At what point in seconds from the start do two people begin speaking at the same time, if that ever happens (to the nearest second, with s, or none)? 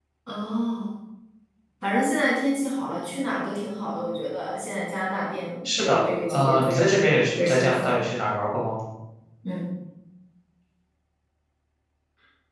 6 s